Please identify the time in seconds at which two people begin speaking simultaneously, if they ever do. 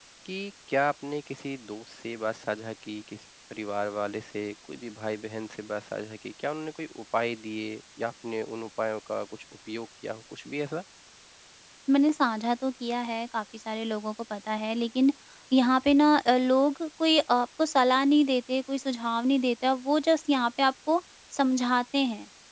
none

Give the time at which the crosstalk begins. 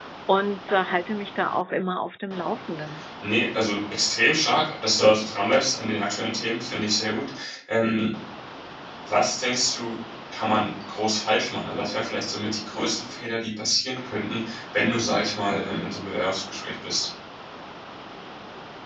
none

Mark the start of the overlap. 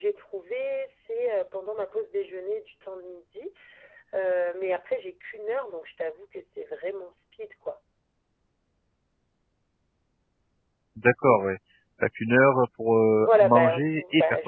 13.2 s

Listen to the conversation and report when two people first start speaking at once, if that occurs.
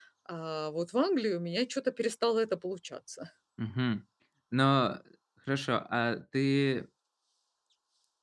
none

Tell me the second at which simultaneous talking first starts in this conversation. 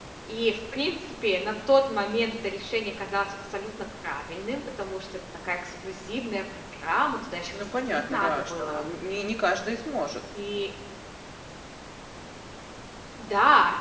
7.5 s

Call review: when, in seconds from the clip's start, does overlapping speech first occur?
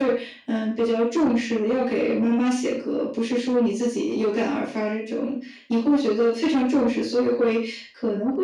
none

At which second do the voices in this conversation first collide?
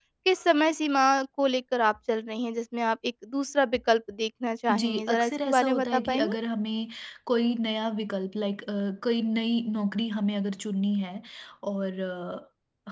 4.7 s

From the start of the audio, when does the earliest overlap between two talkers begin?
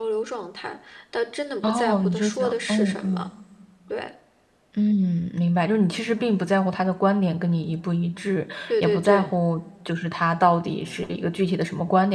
1.6 s

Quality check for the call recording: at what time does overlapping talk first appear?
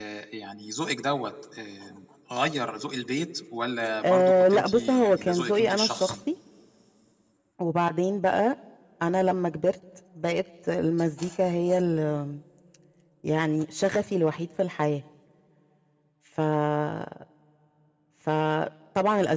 4.0 s

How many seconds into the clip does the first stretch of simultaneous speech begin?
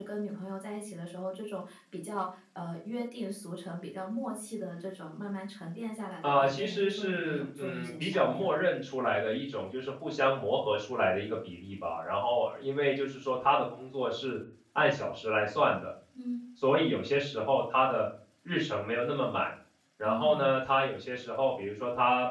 6.2 s

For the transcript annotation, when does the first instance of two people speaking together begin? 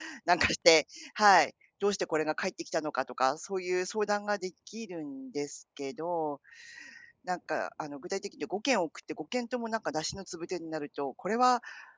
none

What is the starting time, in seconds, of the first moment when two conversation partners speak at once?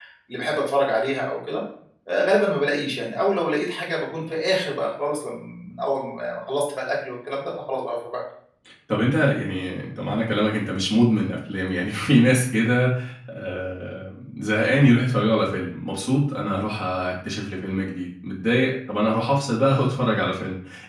none

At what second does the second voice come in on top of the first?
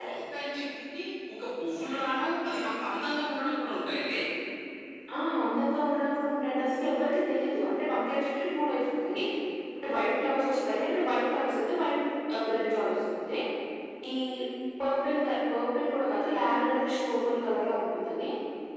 none

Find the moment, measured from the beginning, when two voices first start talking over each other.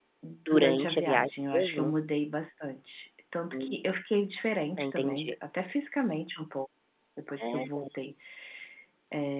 0.5 s

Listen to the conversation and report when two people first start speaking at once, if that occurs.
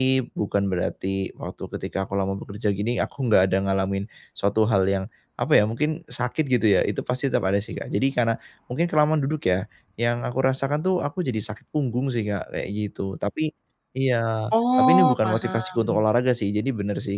14.5 s

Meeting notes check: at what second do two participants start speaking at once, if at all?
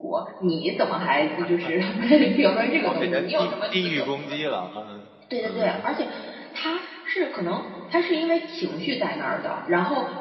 2.8 s

